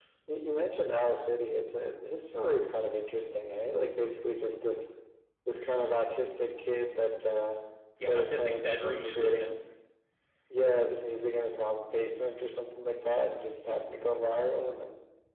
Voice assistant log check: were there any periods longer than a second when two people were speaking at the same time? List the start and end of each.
8.0-9.6

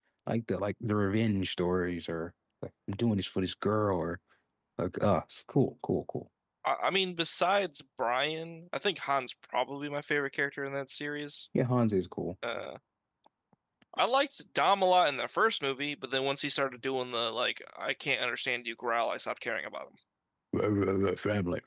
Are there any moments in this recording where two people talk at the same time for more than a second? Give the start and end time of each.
none

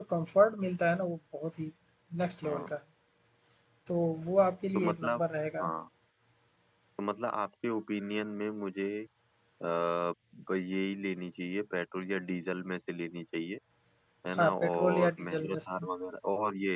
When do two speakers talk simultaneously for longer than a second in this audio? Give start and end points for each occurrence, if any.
14.4-15.8

